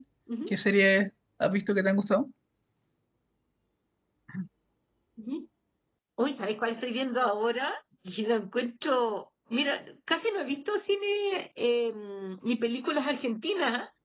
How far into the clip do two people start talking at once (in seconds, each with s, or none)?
none